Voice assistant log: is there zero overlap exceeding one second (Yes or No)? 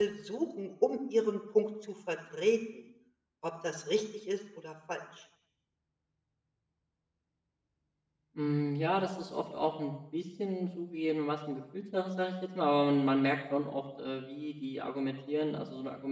Yes